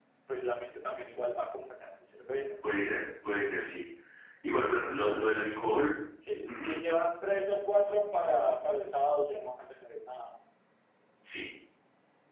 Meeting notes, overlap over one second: none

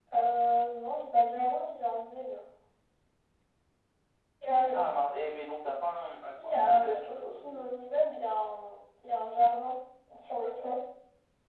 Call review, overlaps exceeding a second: present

